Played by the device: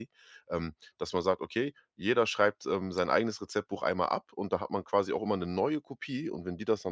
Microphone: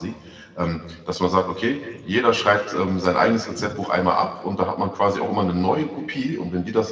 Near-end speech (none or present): none